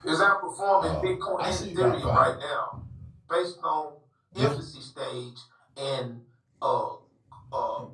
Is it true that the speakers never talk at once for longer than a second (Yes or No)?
No